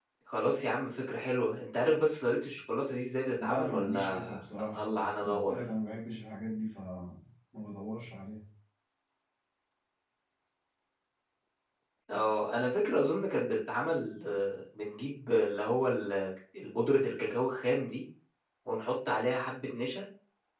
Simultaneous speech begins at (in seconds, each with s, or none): 3.4 s